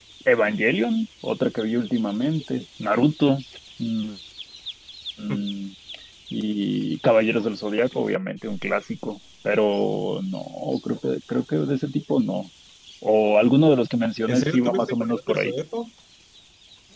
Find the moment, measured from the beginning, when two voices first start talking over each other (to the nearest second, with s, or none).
14 s